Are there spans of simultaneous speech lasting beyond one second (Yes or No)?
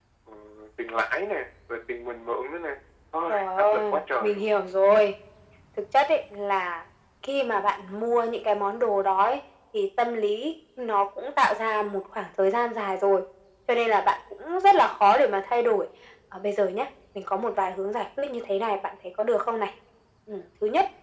Yes